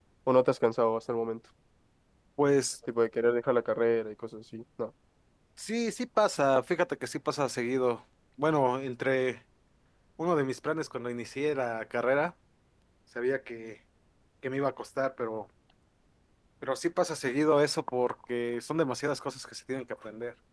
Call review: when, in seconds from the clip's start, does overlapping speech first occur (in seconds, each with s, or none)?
none